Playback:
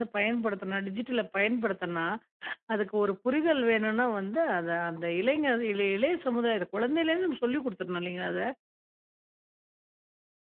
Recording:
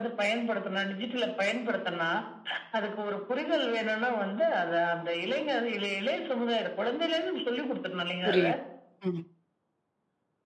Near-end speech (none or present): present